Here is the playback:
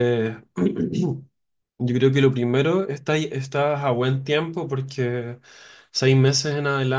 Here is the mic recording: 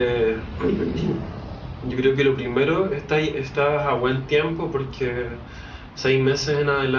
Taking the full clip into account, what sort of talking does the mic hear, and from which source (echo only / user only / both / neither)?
echo only